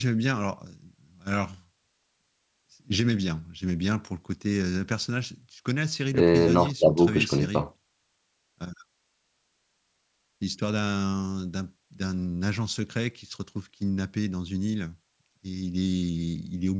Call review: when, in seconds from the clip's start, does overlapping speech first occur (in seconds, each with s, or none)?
6.1 s